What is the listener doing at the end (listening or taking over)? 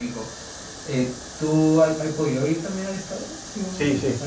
taking over